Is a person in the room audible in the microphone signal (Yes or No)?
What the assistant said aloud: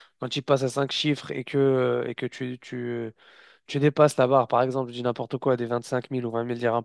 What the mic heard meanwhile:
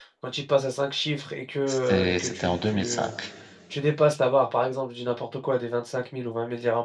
Yes